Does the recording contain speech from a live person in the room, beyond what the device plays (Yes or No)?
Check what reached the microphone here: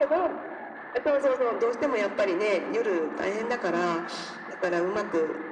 No